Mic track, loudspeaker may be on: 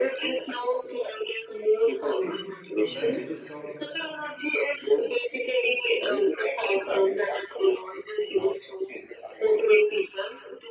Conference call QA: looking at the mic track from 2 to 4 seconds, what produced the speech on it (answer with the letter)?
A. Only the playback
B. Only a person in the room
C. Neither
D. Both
D